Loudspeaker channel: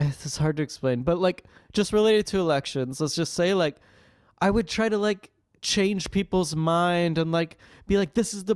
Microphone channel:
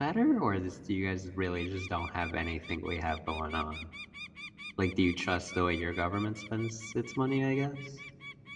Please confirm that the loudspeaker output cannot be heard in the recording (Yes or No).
Yes